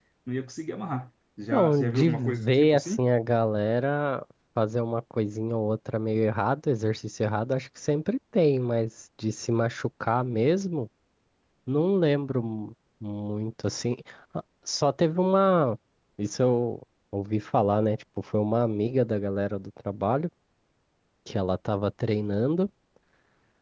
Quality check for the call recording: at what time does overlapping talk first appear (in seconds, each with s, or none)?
1.5 s